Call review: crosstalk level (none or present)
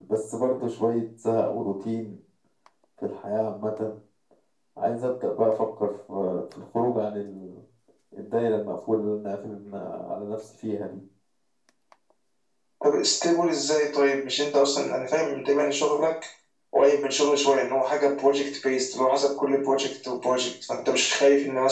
none